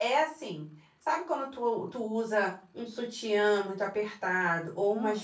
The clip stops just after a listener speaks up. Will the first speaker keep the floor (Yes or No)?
Yes